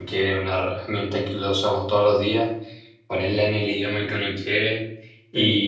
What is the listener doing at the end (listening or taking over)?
listening